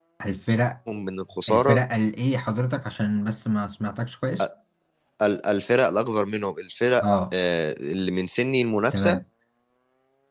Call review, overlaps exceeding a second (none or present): none